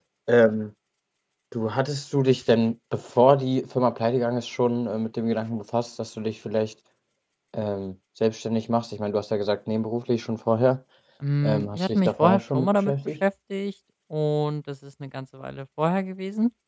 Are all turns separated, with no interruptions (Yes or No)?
No